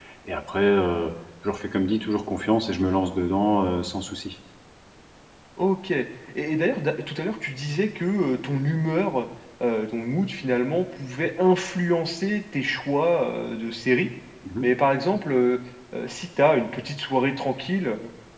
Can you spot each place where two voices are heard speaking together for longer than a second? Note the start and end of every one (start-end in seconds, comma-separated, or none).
none